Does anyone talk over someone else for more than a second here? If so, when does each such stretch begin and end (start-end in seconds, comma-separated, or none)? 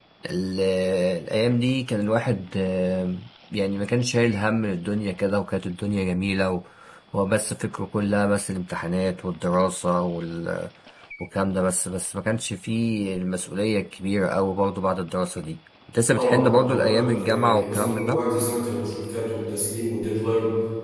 16.1-18.2